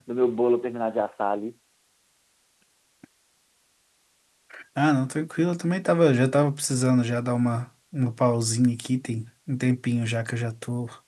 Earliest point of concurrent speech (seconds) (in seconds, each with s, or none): none